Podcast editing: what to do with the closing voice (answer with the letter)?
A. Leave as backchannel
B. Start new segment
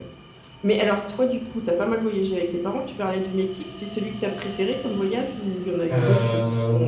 B